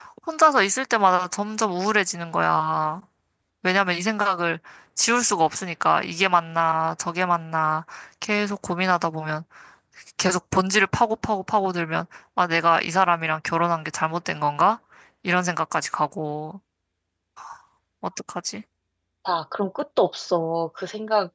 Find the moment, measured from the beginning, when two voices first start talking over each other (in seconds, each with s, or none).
none